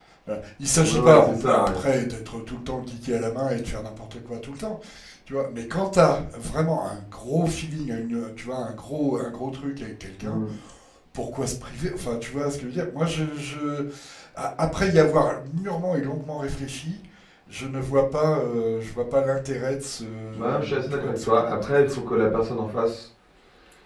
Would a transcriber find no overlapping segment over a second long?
No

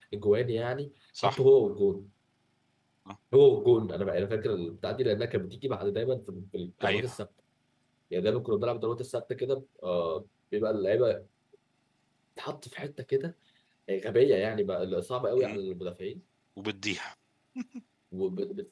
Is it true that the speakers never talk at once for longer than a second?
Yes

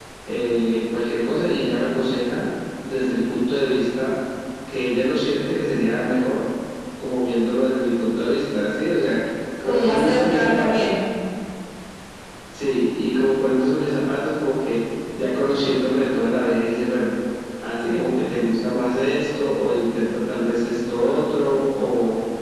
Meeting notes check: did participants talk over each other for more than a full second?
Yes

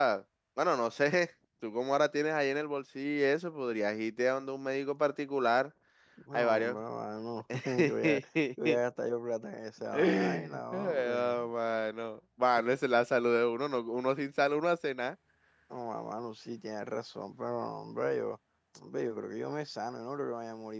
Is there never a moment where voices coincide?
No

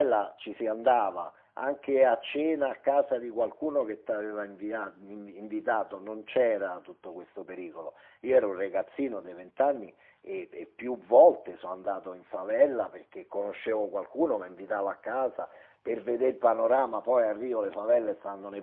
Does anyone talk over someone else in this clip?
No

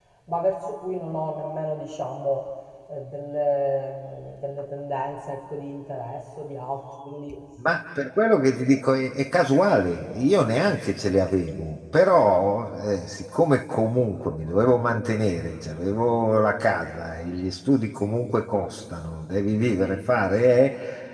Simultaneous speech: No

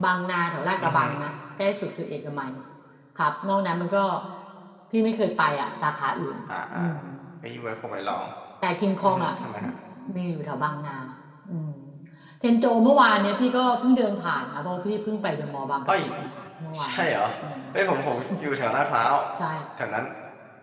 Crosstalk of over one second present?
No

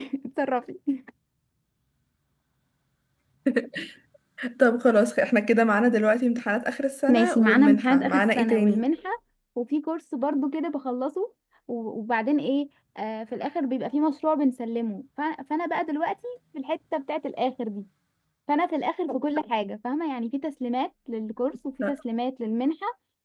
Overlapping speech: Yes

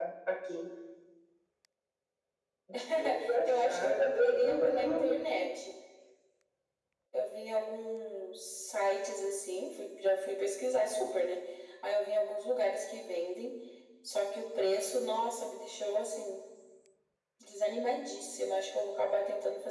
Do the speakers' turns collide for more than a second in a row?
Yes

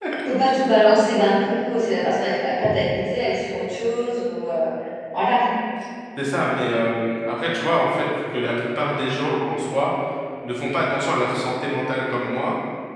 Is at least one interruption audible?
No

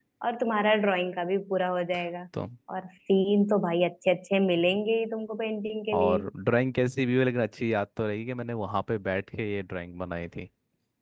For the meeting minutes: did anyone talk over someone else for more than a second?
No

